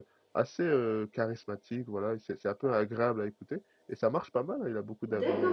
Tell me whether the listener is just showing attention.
No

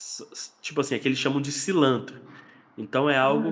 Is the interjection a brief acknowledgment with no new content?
Yes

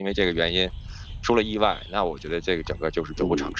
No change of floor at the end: No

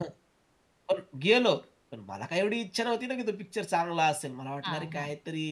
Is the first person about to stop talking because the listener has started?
No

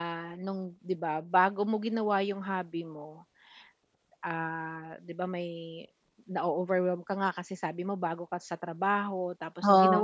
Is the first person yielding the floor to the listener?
No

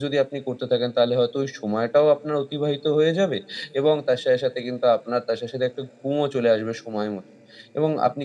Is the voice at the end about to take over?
No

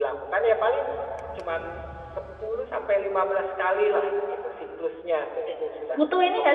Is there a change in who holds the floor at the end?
Yes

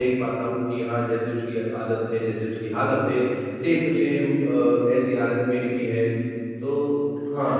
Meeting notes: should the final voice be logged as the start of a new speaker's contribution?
Yes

